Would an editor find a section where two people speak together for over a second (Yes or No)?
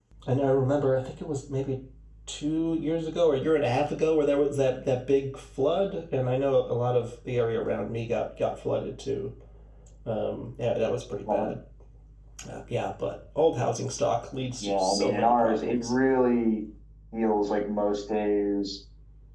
Yes